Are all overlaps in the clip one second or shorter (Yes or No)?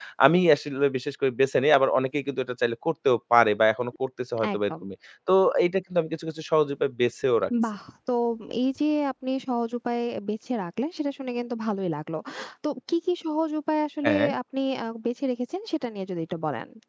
Yes